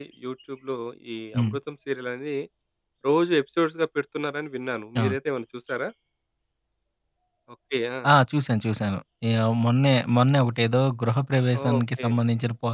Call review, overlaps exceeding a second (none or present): none